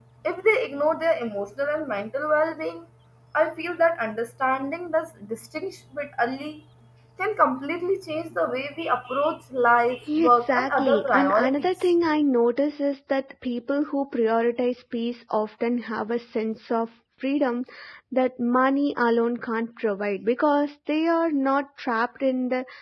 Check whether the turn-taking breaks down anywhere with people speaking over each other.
Yes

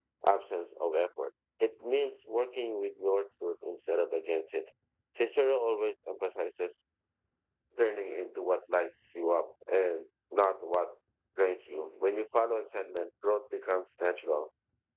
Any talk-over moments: No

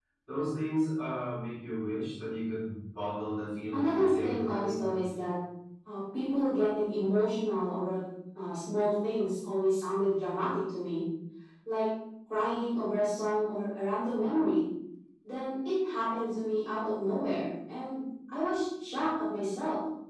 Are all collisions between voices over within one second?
No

